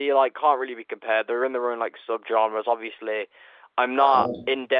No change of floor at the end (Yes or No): Yes